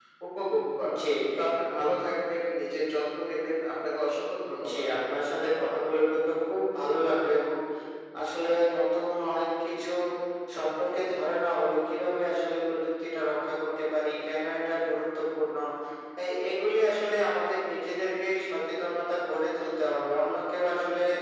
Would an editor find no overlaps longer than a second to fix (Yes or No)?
Yes